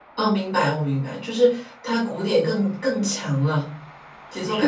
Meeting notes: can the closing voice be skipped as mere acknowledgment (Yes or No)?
No